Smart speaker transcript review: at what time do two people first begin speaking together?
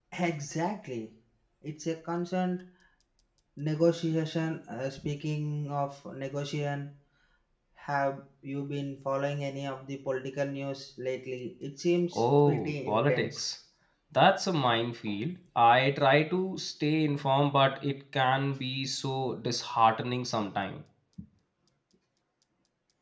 12 s

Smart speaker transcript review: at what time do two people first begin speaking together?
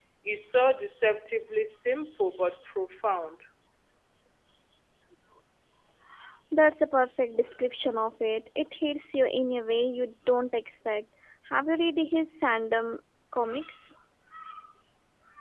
none

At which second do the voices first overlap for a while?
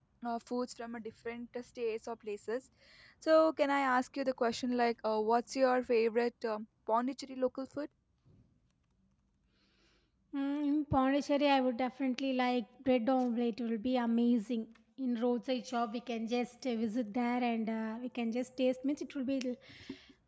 none

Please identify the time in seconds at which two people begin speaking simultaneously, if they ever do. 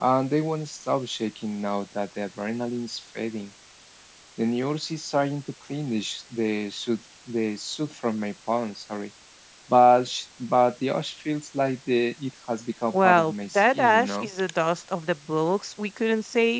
13 s

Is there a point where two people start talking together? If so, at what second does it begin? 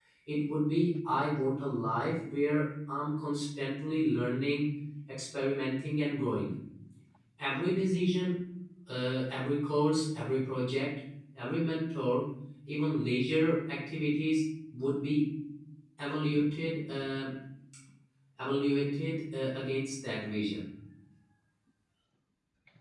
none

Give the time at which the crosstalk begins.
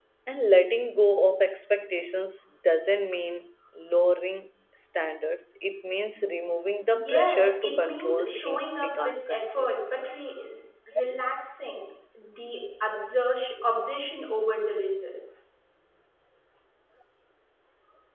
7 s

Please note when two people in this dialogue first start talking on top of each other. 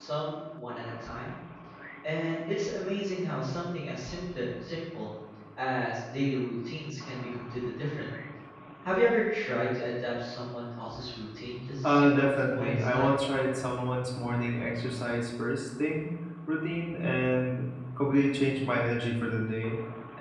12 s

